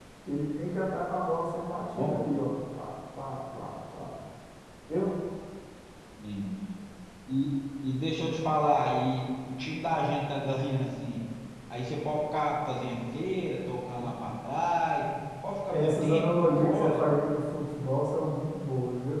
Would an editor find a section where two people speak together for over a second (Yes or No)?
Yes